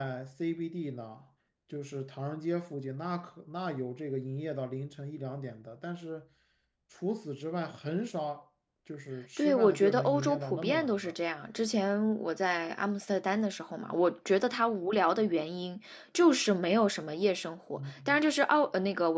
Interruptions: present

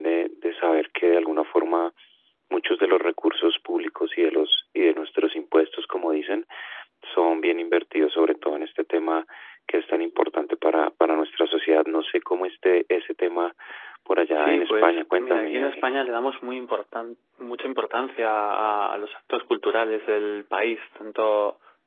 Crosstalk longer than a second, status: present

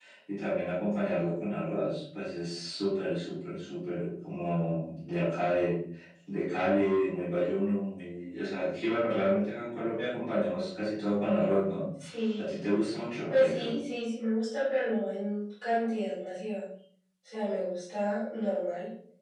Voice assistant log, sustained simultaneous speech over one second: none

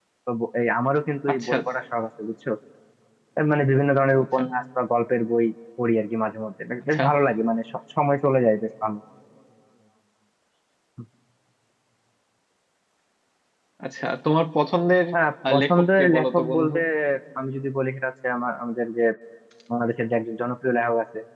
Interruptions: present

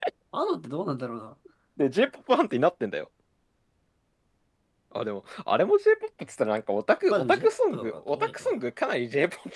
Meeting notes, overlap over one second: present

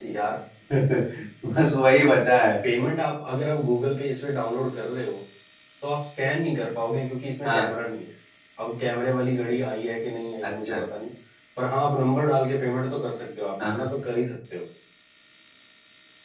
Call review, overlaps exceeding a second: none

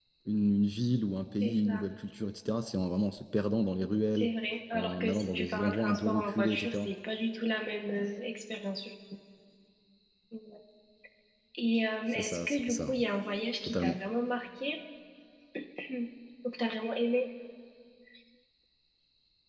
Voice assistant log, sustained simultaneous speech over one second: present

